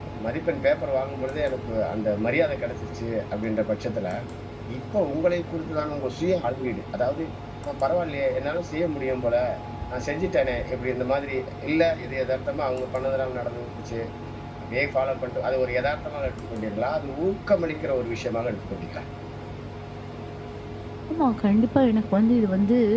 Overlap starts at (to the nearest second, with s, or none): none